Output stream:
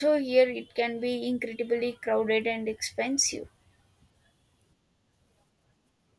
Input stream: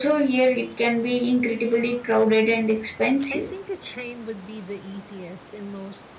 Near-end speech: present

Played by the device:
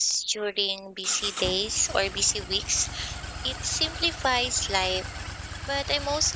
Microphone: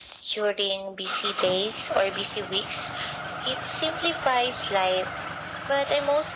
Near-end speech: none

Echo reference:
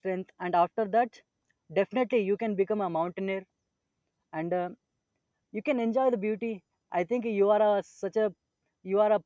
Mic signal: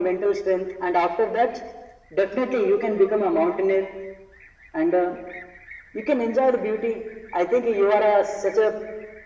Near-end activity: none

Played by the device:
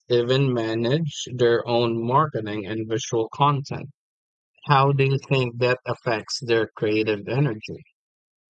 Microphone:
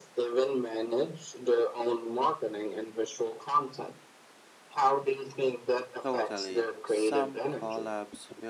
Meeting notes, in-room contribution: present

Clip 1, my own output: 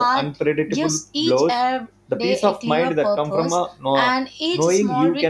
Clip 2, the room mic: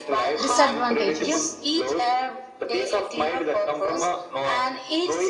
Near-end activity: present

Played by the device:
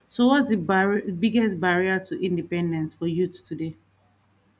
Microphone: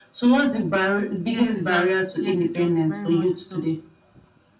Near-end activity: present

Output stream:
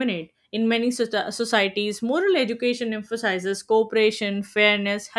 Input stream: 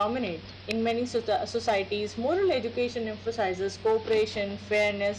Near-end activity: none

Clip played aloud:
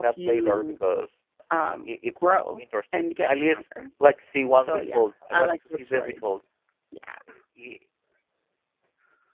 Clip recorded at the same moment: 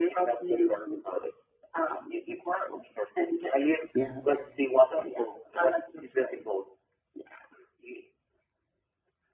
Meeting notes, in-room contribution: present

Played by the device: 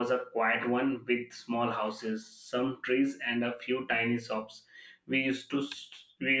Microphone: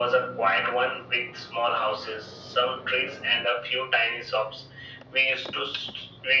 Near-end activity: none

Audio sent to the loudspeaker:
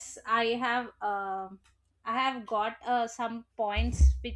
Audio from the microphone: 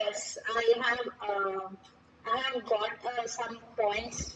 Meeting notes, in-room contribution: none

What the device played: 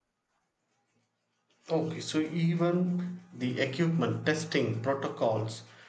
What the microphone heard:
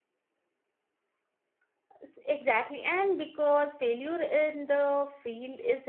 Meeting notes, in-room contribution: present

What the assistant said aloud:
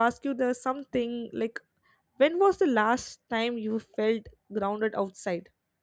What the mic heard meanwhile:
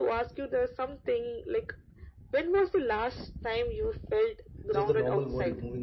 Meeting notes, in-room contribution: present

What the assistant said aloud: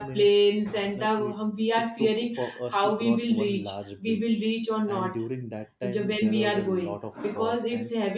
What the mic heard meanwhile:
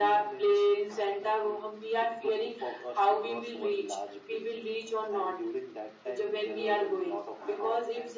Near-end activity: none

